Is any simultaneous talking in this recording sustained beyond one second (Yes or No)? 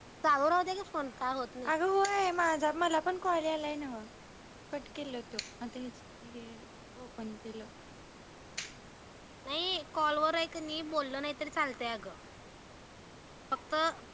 No